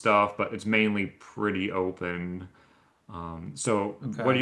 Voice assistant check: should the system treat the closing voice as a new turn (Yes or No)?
No